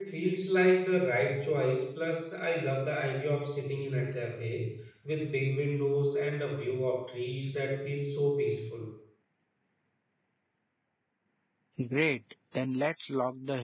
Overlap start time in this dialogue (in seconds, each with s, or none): none